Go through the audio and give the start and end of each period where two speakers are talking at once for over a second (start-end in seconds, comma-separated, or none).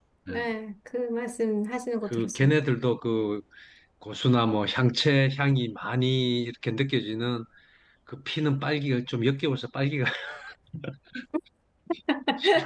none